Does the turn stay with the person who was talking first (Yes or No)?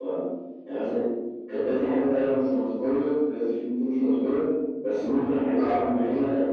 Yes